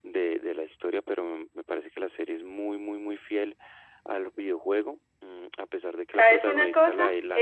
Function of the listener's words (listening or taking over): taking over